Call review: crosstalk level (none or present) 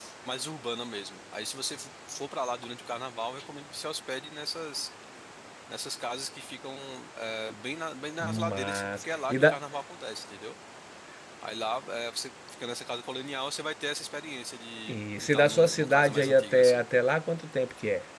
present